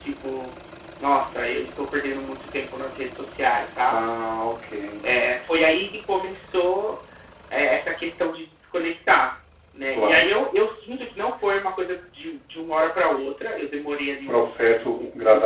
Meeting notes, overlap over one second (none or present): none